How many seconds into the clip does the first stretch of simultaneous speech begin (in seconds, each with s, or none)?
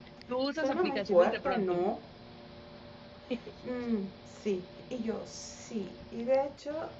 0.6 s